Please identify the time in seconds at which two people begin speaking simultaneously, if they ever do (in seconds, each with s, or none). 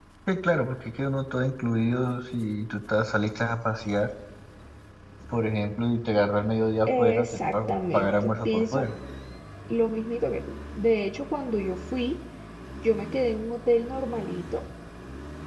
6.9 s